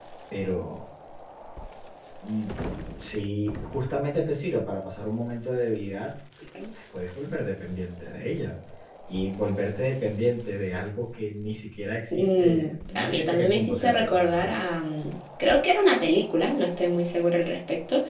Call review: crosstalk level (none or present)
present